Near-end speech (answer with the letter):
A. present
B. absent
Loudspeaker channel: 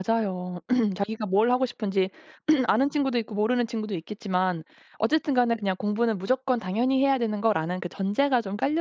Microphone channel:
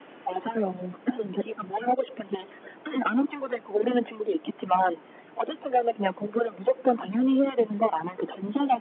B